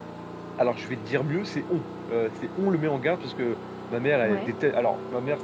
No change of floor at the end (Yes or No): Yes